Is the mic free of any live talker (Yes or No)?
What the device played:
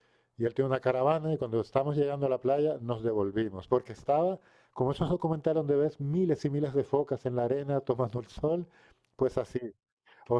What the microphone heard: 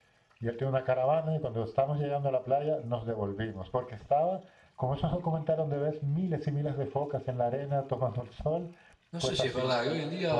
No